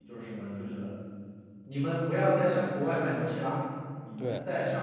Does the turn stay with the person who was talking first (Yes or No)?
Yes